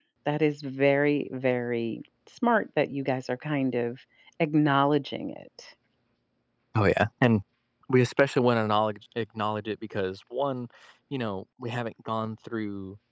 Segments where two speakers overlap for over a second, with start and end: none

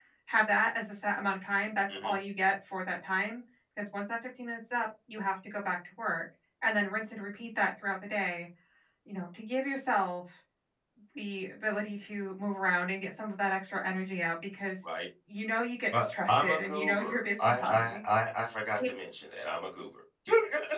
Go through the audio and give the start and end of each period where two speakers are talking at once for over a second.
16.0-18.0

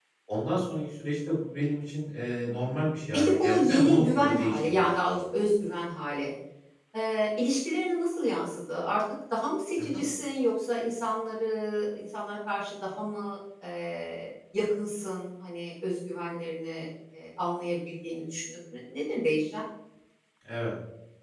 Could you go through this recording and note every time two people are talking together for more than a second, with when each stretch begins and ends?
2.5-5.2

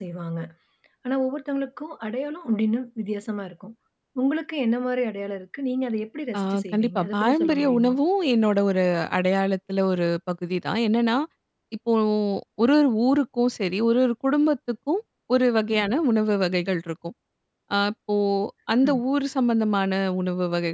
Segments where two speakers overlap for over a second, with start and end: 6.4-8.0

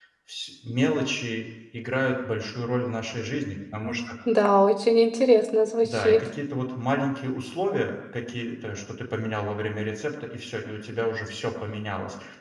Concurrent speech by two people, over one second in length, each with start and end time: none

